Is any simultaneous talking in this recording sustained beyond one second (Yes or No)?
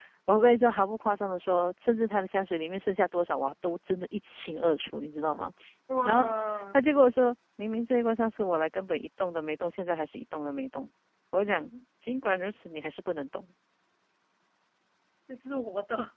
No